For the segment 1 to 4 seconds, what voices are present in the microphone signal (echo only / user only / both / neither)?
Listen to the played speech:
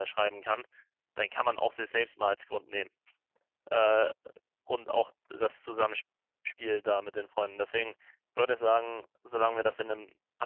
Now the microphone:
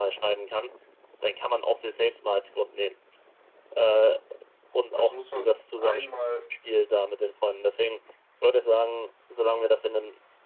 echo only